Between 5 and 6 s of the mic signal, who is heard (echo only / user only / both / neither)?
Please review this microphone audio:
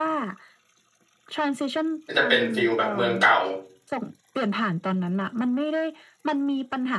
echo only